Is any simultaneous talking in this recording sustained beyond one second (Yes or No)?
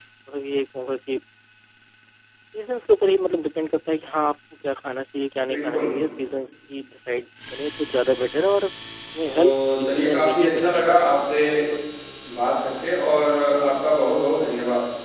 Yes